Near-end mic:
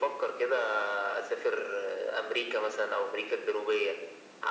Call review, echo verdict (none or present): present